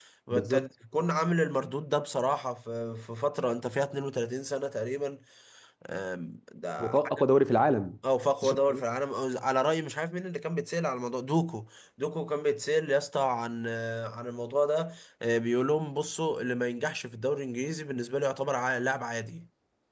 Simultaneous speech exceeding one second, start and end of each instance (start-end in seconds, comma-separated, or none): none